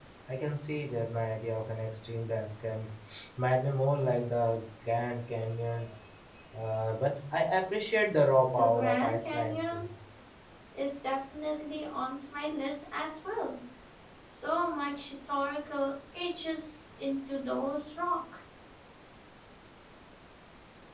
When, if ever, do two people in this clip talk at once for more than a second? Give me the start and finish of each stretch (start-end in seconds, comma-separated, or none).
8.6-9.9